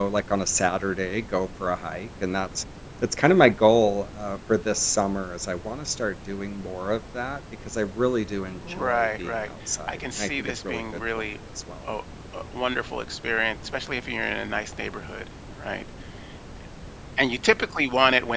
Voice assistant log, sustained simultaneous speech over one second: present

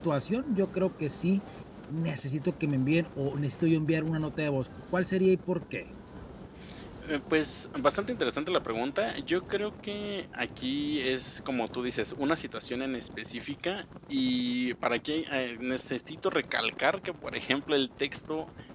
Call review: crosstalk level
none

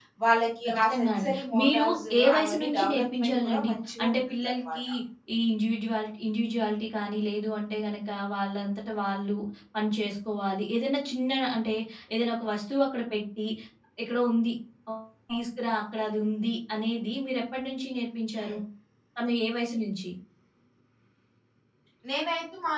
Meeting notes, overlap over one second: present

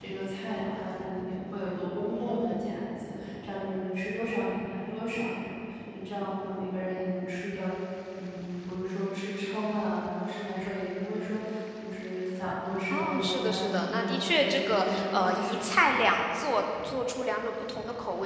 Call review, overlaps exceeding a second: present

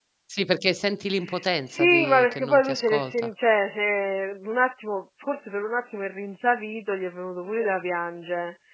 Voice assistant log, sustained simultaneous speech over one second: present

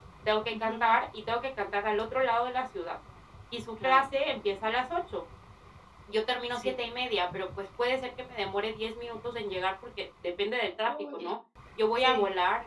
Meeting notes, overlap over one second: none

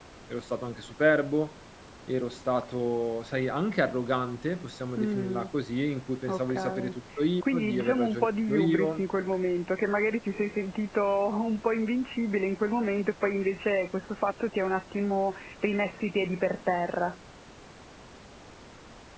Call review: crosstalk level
present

